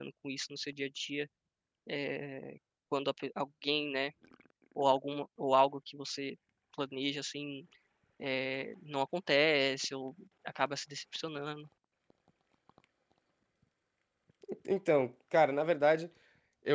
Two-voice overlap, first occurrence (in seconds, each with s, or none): none